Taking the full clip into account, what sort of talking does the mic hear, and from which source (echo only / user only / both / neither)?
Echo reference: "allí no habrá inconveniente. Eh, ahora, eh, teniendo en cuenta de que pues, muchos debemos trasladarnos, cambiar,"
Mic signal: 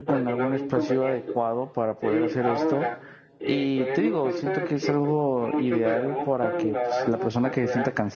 both